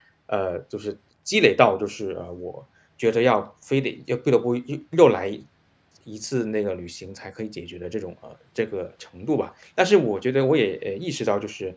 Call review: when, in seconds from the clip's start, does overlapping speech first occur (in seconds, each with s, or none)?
none